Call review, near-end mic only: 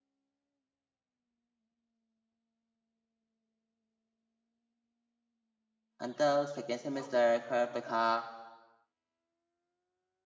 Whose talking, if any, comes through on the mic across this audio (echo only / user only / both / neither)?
user only